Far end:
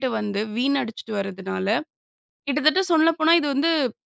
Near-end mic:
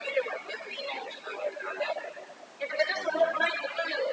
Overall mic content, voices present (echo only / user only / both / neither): both